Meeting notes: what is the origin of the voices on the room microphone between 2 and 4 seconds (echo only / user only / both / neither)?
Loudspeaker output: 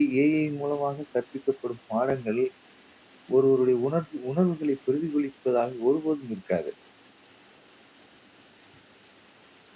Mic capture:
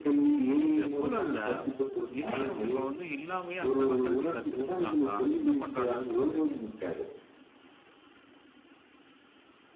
both